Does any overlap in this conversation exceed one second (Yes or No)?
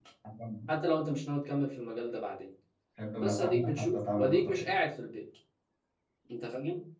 Yes